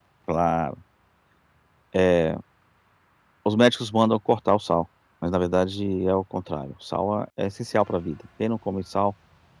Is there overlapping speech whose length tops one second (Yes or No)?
No